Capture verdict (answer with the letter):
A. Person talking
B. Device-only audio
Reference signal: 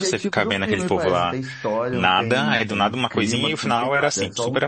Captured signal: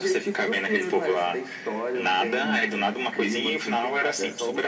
B